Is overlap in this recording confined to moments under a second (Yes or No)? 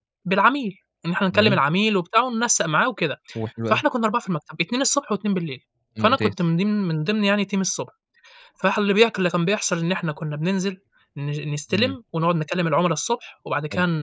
Yes